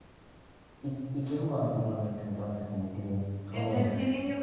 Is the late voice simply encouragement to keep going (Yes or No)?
No